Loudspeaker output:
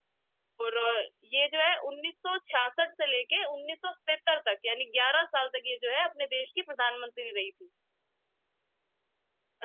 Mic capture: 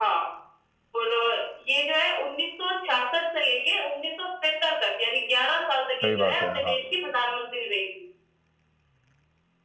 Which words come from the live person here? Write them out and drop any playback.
सही बात है हाँ

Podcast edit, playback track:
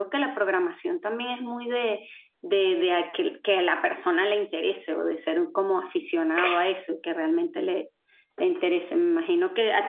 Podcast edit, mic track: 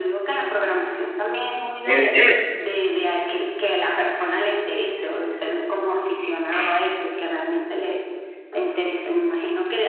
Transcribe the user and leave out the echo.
En serio,

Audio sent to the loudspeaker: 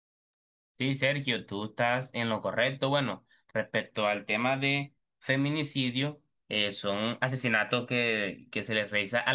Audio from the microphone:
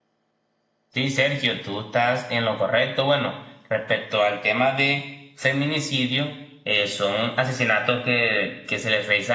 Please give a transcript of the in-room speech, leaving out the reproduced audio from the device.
none

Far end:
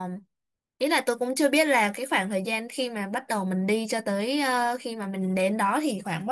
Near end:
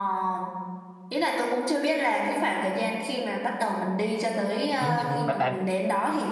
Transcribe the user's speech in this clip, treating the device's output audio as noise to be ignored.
Ừ, nhưng bà, bà,

